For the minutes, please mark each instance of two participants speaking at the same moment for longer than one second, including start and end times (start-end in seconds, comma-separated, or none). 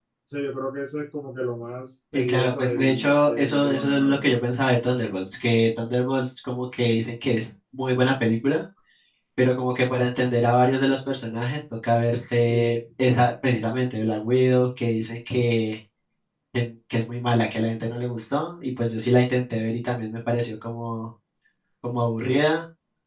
2.1-4.3